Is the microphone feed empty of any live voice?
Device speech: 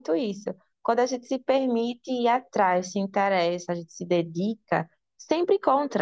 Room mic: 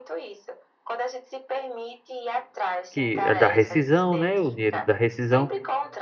No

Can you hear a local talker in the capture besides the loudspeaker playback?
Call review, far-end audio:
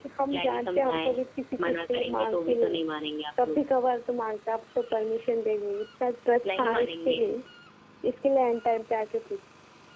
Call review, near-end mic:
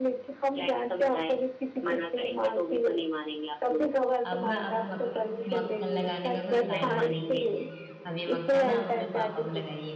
Yes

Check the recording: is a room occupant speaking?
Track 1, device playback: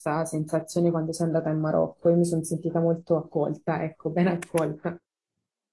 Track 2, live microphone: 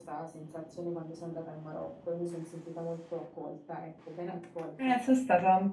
Yes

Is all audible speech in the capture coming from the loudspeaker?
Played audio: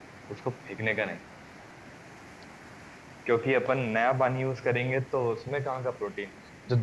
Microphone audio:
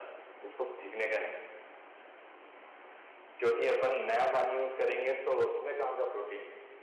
Yes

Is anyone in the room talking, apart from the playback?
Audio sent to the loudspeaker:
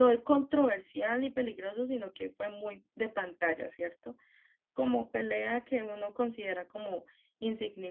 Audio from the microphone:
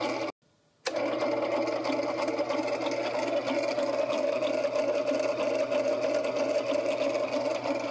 No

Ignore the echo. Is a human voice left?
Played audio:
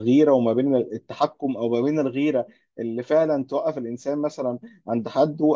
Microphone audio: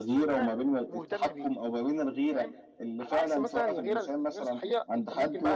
Yes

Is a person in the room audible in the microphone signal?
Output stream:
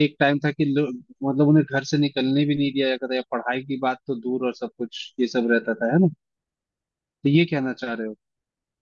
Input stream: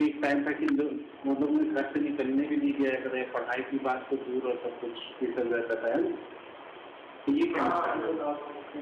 Yes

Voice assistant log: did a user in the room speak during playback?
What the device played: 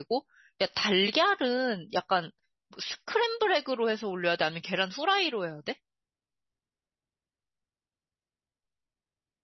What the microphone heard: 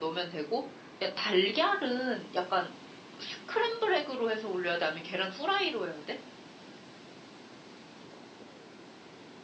No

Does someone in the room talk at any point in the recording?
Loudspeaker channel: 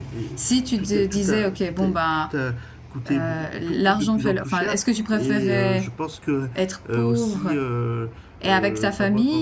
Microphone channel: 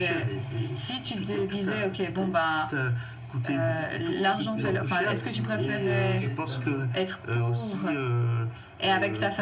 Yes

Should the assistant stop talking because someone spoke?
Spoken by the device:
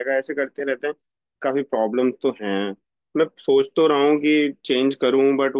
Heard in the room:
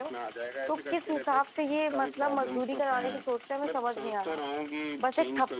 Yes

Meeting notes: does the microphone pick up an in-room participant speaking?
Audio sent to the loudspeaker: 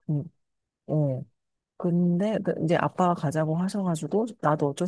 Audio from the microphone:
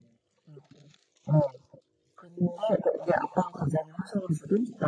No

